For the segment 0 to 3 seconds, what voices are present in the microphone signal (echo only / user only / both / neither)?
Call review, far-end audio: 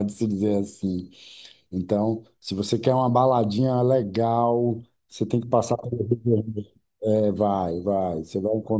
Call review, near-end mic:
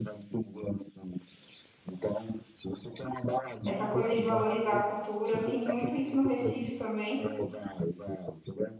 echo only